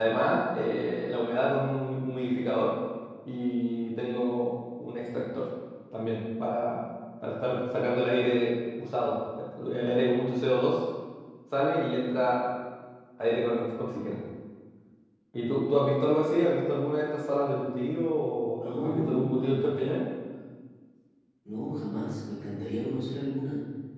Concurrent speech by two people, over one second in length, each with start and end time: 18.6-20.0

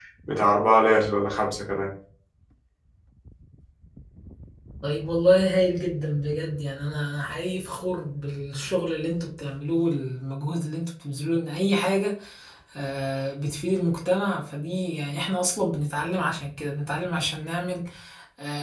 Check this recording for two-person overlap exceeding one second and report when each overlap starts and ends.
none

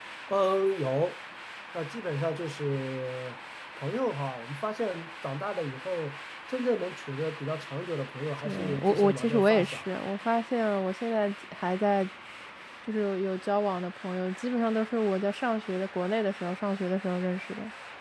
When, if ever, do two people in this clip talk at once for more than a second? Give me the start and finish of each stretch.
8.4-9.8

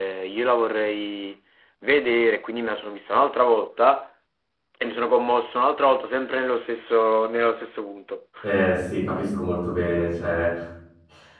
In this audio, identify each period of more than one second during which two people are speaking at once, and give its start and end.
none

